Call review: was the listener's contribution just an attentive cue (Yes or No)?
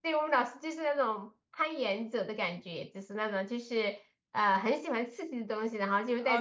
No